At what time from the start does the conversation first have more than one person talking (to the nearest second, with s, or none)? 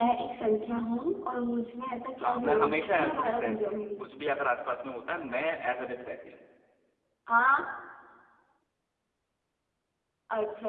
2 s